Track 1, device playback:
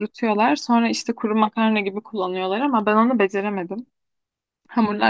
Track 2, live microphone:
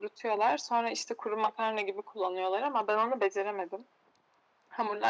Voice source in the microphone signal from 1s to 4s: echo only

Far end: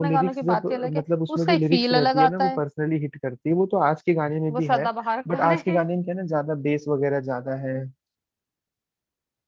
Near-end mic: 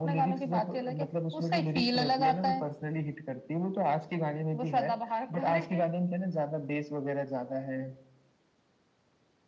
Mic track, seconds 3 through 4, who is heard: echo only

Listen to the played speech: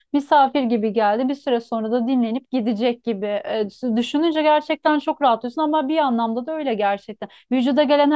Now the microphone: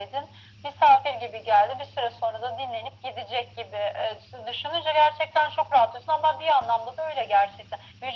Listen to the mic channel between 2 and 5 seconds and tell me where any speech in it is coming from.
echo only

